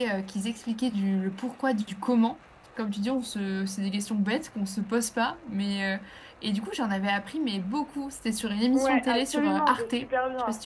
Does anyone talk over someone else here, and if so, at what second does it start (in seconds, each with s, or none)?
8.7 s